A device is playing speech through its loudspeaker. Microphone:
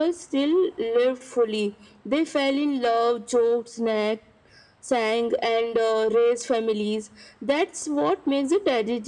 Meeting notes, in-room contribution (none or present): none